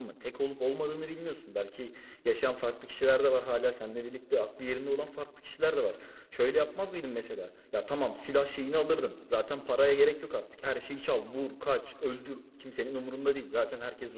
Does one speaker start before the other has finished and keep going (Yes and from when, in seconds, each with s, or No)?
No